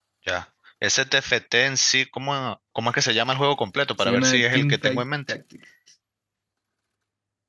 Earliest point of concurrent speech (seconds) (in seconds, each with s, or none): 4.0 s